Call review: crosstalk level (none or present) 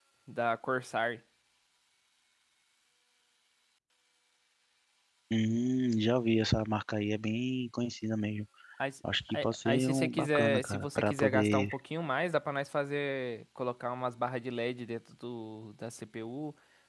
present